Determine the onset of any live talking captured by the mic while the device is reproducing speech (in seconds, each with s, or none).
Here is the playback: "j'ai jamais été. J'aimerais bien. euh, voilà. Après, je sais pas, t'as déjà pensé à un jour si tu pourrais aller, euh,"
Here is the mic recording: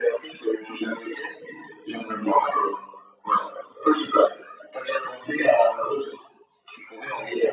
none